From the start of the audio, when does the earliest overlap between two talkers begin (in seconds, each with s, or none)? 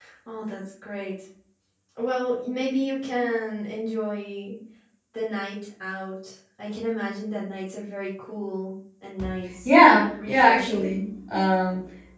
9.7 s